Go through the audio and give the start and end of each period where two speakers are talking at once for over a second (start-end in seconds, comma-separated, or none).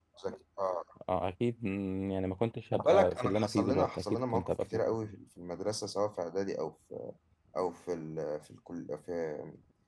2.7-5.0